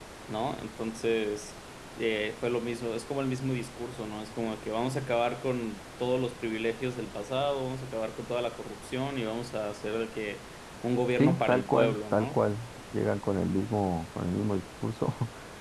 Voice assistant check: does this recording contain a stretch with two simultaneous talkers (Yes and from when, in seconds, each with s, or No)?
Yes, from 11.2 s